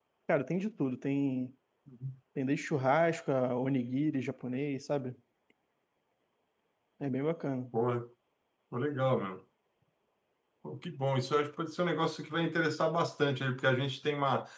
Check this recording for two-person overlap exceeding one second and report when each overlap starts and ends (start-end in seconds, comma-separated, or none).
none